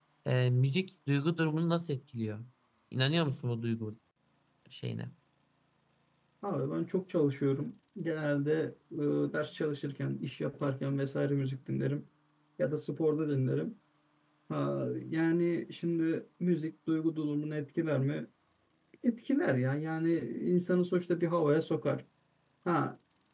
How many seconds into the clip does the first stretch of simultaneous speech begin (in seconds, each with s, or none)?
none